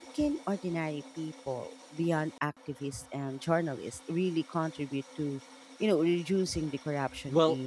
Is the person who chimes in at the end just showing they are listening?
No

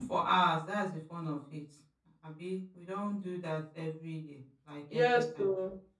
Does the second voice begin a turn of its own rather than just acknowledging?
Yes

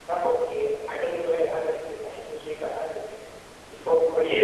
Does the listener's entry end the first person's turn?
Yes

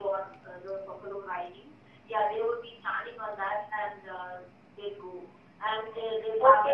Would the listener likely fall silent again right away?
No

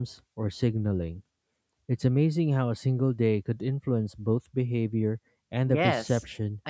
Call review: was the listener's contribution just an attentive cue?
No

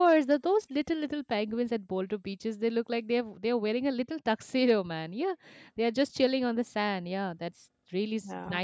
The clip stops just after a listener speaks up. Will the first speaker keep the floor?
No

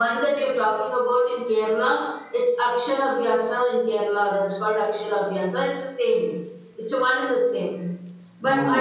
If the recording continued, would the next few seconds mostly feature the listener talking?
No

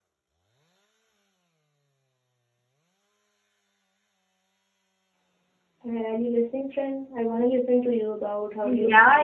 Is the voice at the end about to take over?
Yes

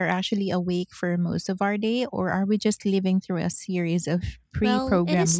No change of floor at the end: No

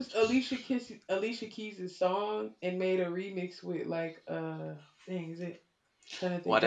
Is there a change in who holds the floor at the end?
Yes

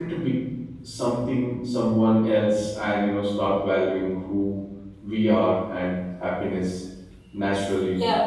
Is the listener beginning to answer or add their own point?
Yes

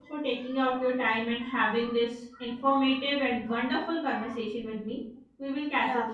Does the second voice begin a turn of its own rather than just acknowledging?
Yes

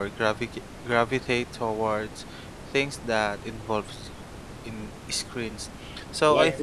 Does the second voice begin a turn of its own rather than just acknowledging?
No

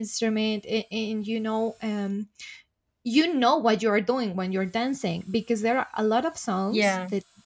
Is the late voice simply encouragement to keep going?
Yes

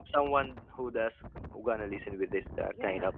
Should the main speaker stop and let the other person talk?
No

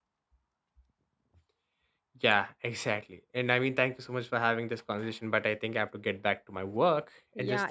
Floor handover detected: Yes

